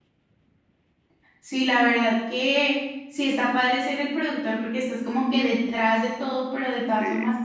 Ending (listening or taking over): listening